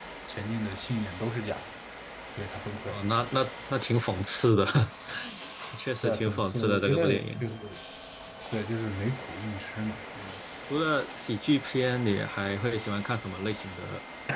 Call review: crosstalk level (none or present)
present